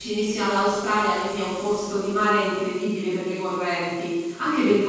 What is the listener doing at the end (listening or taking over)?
listening